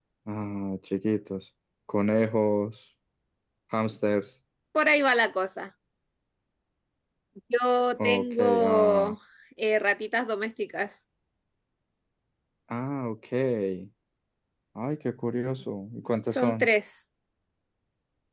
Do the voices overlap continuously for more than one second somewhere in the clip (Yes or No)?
Yes